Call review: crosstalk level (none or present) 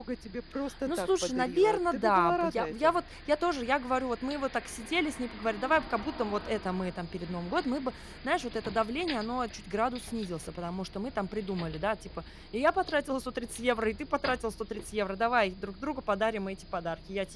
present